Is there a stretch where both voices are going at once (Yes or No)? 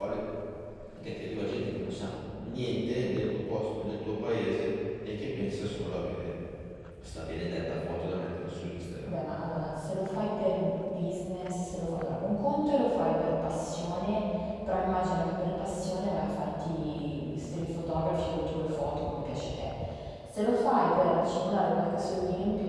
No